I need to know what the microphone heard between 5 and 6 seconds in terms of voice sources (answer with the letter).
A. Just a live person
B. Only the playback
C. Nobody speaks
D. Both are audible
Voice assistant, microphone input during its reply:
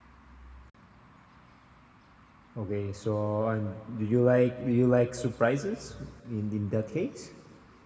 A